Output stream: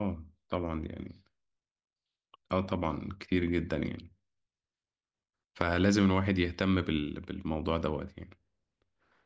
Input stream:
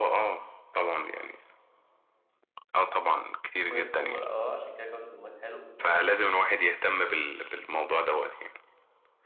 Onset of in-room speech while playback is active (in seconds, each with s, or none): 3.7 s